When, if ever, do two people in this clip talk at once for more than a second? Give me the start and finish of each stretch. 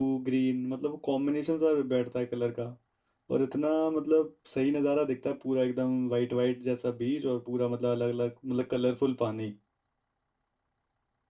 none

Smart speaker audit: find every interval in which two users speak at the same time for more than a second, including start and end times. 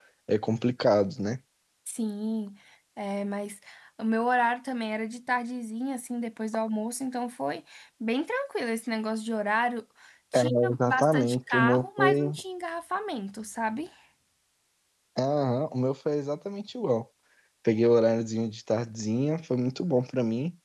10.3-12.3

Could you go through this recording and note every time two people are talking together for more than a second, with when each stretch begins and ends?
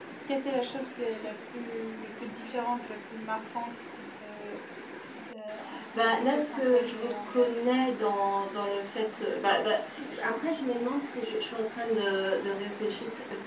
6.0-7.5

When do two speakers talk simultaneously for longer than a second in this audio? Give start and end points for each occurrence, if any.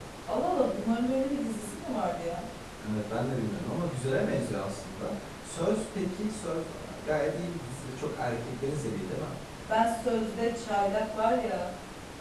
none

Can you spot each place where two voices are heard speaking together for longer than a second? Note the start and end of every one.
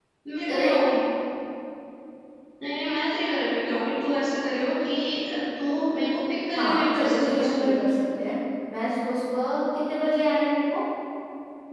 6.5-7.7

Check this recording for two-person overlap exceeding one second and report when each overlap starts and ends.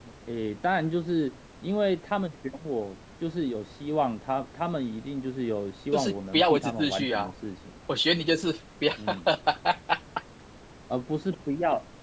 5.9-7.3

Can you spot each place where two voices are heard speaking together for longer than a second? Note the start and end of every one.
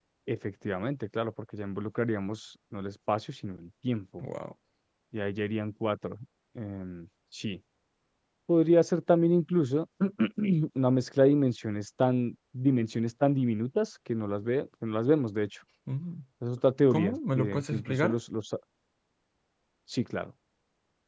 16.9-18.2

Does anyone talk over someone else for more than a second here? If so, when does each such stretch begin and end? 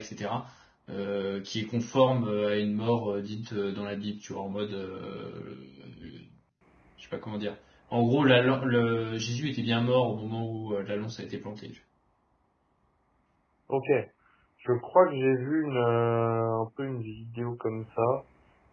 none

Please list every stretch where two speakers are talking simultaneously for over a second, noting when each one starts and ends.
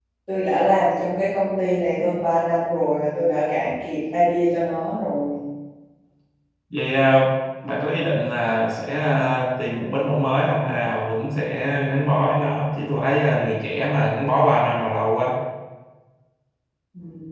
none

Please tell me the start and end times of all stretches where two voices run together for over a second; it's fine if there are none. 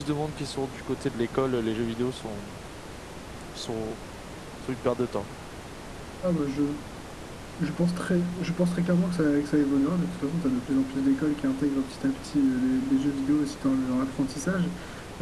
none

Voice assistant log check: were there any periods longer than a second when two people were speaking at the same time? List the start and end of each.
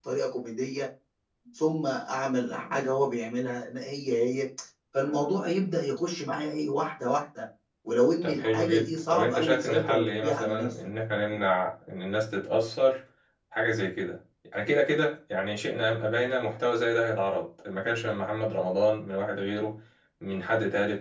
8.2-10.7

